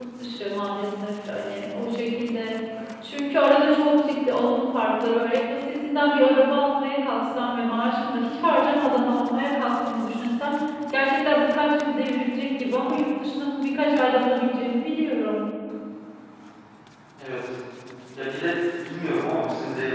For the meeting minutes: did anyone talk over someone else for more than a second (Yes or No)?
No